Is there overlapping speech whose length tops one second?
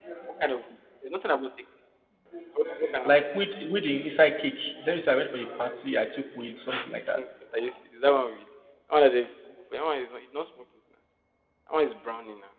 No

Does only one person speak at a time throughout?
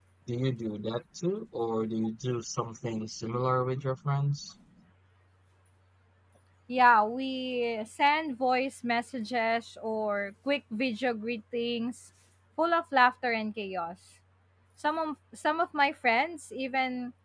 Yes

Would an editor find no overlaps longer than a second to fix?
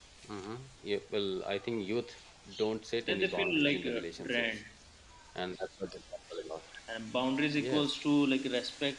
No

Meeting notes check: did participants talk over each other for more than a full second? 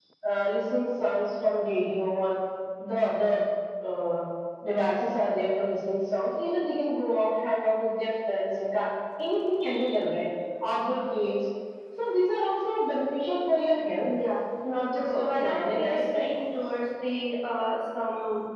Yes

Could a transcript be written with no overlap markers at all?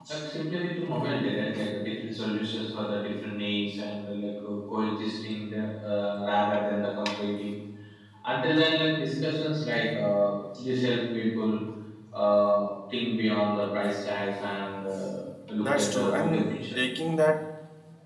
No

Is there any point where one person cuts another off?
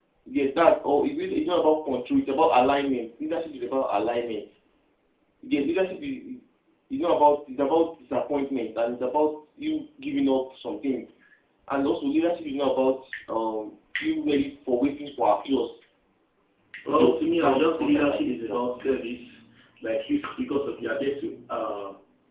Yes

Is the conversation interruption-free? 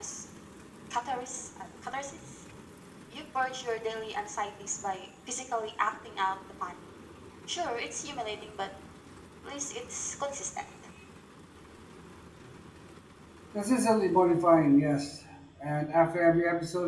Yes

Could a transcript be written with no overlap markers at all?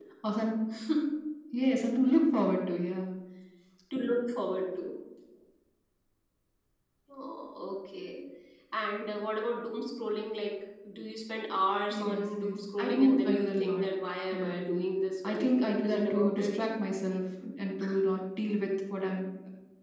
No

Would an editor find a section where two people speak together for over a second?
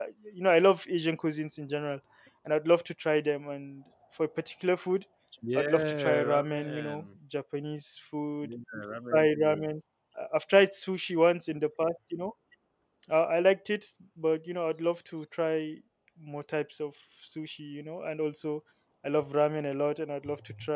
Yes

